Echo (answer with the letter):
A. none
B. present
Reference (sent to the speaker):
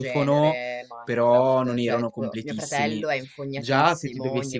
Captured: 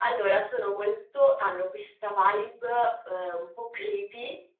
A